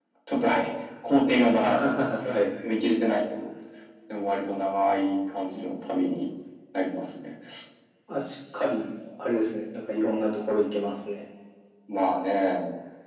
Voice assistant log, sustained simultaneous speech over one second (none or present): none